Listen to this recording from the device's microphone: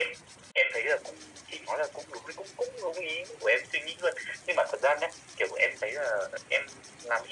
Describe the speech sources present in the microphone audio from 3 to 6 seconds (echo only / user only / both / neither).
echo only